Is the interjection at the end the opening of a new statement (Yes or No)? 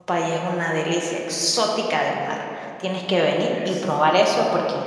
No